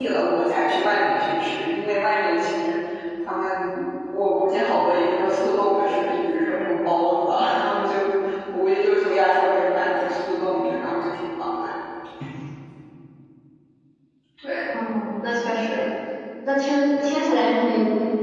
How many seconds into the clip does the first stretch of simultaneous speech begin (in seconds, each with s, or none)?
none